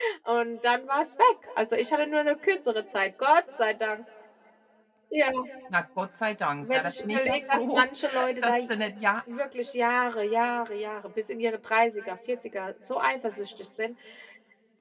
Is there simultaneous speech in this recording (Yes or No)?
Yes